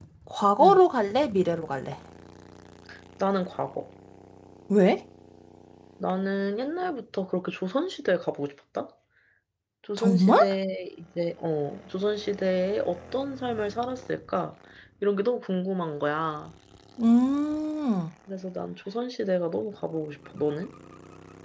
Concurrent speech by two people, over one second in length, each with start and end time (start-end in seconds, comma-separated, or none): none